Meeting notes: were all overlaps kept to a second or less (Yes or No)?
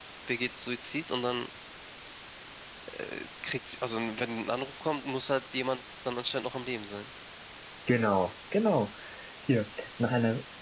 Yes